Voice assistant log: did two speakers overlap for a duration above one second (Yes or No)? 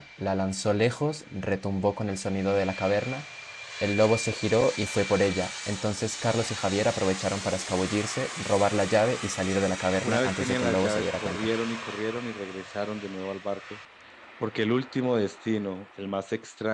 Yes